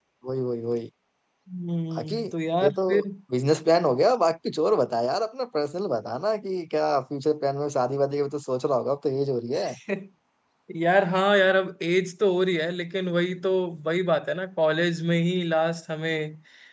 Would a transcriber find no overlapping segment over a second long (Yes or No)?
Yes